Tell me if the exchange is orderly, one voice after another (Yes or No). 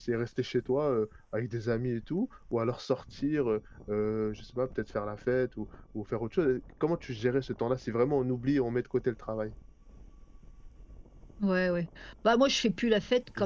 Yes